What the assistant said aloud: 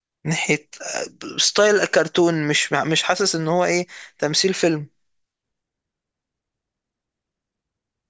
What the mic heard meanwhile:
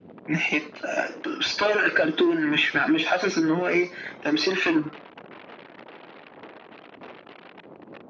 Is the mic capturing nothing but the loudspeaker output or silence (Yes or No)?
Yes